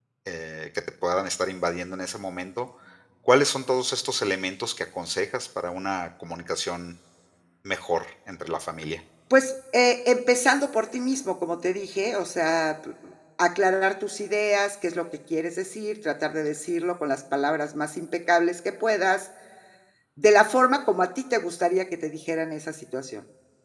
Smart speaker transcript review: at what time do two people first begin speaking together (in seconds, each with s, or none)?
none